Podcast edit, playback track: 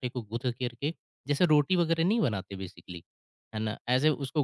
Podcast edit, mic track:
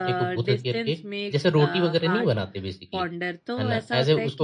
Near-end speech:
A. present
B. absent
A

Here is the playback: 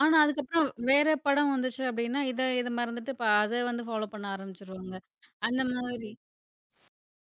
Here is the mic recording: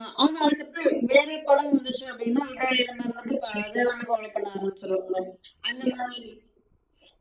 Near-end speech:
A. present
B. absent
B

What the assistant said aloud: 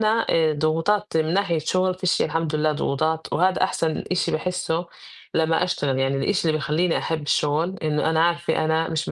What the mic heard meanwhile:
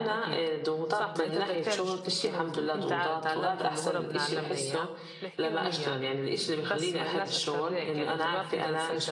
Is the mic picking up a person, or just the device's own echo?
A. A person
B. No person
A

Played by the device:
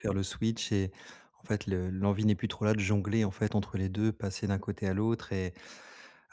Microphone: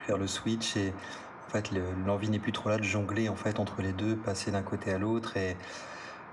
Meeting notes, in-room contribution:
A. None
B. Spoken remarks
A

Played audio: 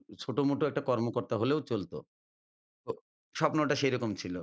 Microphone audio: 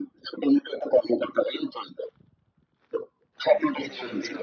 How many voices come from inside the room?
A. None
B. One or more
B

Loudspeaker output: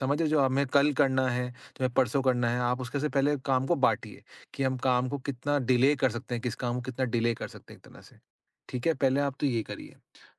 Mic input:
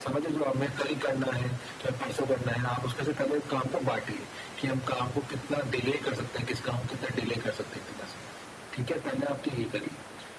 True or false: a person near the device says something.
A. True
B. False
B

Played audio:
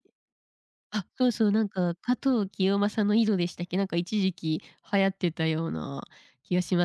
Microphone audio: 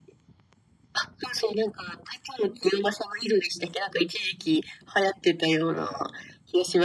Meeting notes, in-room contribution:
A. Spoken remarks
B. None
A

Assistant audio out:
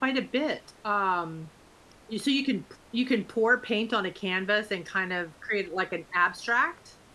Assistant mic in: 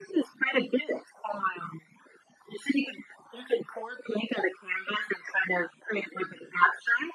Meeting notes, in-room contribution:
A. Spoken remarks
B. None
B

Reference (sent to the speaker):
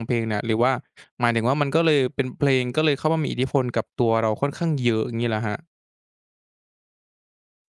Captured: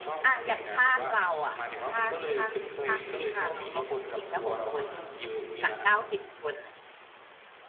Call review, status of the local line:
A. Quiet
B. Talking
B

